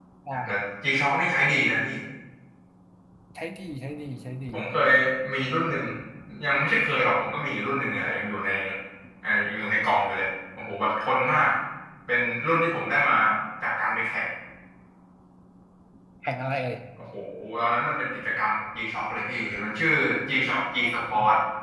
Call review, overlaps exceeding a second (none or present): none